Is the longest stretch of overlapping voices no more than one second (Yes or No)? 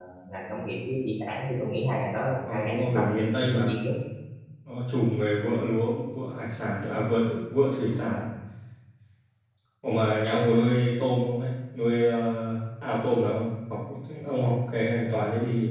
No